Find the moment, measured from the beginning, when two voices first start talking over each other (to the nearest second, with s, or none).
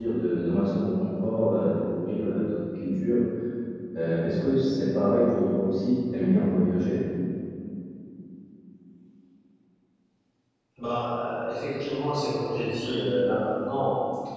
none